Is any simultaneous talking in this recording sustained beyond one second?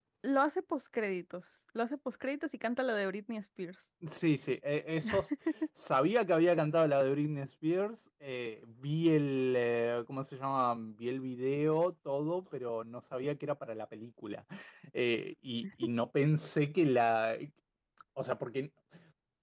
No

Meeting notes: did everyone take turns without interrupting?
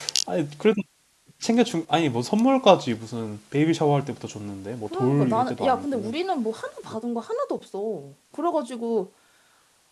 No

